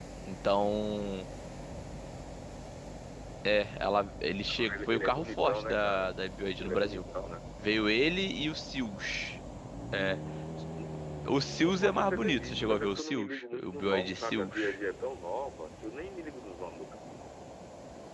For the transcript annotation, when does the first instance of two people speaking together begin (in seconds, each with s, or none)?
4.5 s